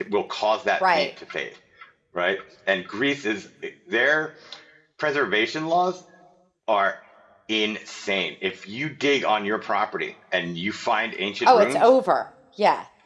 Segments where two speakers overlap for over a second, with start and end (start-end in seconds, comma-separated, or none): none